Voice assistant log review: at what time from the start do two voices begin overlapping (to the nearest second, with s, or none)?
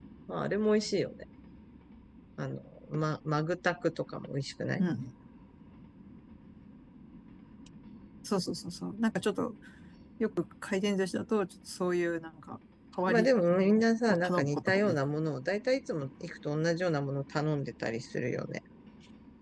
13 s